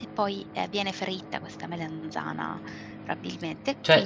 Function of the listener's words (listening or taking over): taking over